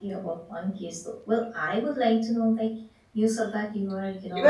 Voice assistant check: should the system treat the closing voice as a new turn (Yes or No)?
Yes